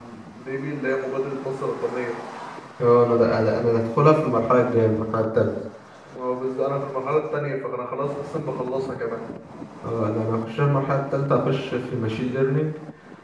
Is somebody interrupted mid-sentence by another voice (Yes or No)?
No